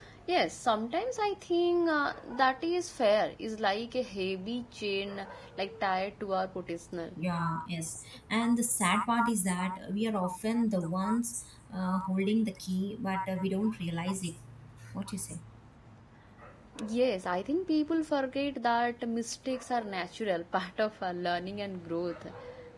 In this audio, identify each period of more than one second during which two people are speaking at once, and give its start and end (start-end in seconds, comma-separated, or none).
none